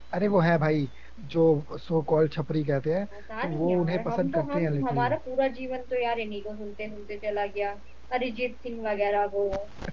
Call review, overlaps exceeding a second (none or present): present